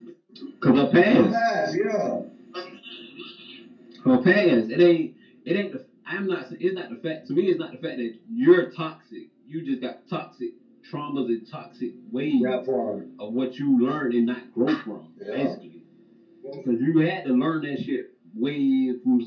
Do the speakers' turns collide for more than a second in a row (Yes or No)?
No